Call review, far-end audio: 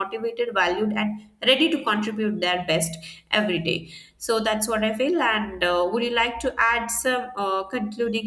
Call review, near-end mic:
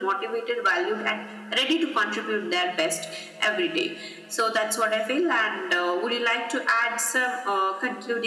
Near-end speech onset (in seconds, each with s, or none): none